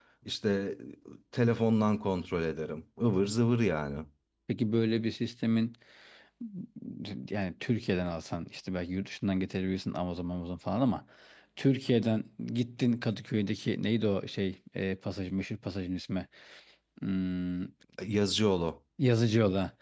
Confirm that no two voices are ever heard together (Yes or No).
Yes